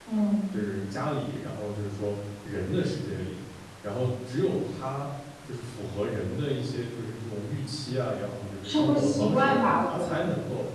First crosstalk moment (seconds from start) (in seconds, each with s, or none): 8.6 s